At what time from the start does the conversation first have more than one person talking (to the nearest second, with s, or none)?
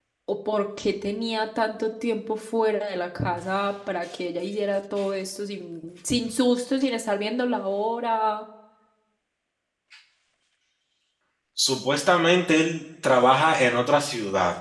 none